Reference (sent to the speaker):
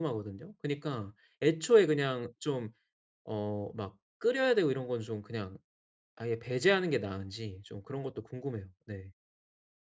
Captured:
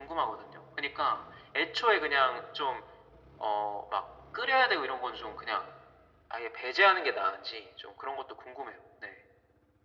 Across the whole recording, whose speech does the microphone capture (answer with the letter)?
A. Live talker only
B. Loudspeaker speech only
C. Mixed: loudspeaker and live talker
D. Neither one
B